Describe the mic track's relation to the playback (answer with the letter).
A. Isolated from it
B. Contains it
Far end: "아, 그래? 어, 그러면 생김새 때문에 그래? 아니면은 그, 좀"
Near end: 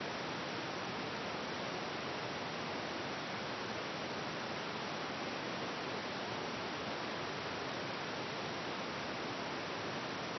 A